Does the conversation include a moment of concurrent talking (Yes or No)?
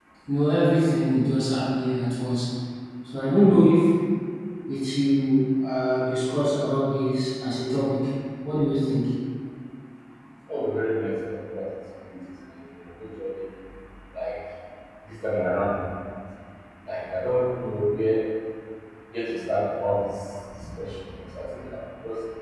No